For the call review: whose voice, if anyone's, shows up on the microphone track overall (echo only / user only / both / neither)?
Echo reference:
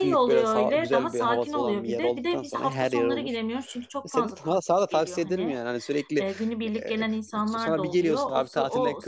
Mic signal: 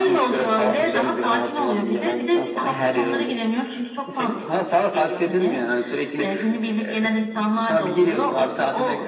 echo only